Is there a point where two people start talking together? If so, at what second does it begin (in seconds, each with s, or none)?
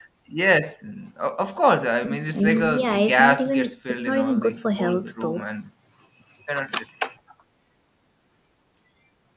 2.3 s